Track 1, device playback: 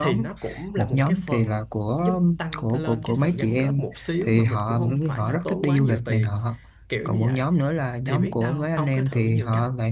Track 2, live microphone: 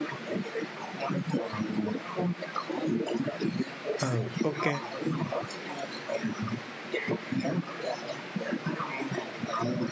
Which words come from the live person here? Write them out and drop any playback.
Ừ, ok.

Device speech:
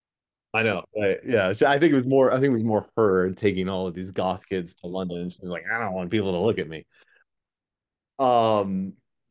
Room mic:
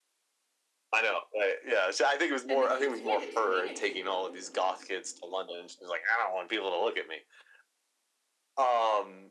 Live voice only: and the kids can't explain it to you.

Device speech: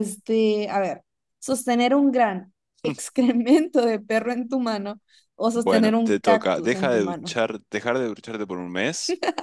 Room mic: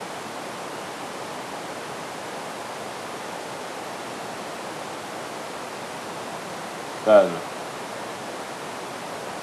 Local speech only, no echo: Claro.

